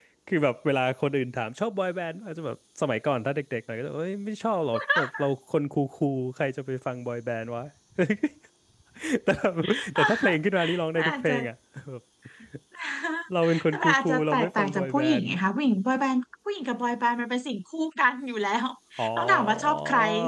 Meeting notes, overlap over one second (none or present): present